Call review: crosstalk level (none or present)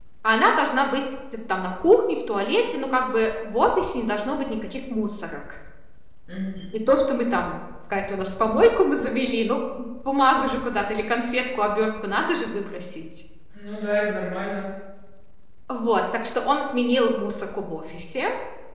none